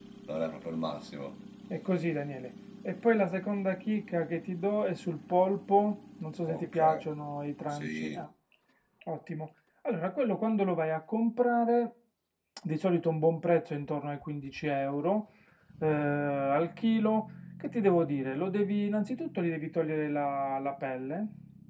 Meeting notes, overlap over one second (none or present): none